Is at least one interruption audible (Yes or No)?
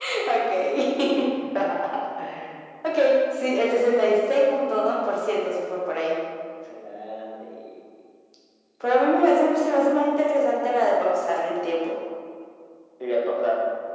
No